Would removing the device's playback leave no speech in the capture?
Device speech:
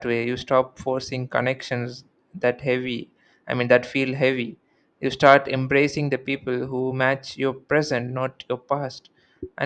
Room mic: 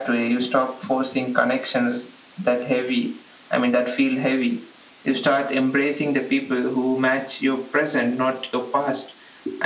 Yes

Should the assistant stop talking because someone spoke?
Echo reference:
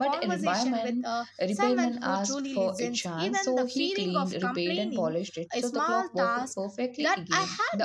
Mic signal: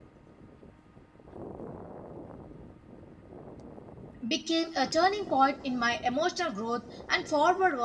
Yes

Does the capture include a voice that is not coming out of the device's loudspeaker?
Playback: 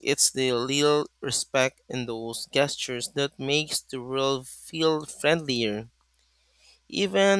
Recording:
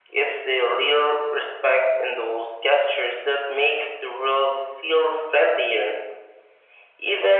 No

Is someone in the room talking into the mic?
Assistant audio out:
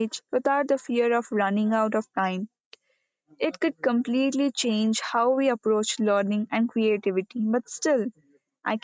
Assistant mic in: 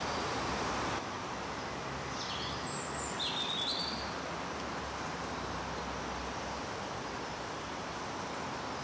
No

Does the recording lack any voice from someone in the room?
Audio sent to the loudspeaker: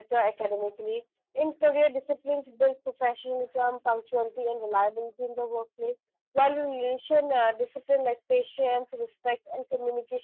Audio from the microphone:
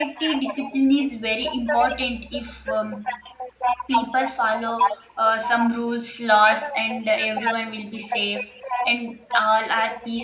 No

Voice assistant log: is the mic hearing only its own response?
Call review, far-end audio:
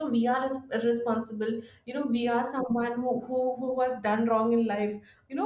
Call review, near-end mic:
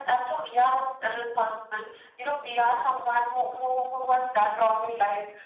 Yes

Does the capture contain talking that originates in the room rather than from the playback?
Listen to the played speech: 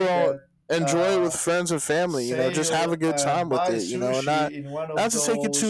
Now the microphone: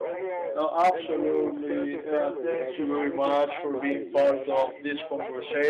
Yes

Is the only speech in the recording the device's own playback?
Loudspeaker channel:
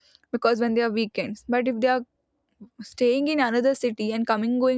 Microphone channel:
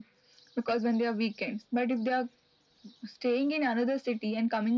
Yes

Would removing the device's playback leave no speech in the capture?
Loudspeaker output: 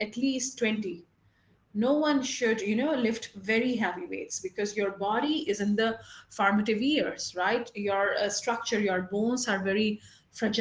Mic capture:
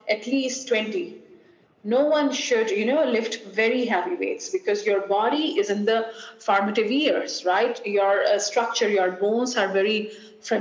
Yes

